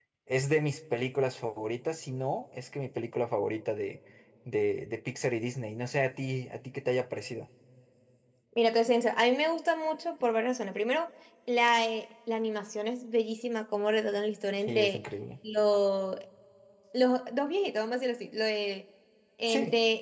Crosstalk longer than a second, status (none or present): none